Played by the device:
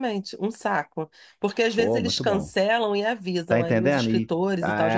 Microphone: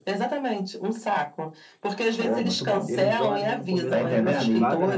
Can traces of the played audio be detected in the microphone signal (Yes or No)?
Yes